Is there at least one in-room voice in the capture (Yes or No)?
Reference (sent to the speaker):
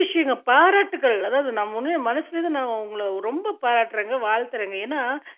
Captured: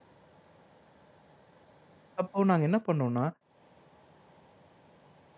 Yes